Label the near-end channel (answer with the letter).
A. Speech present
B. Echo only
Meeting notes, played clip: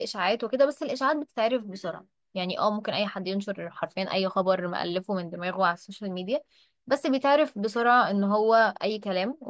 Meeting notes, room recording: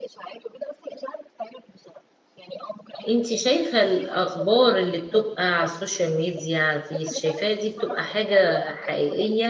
A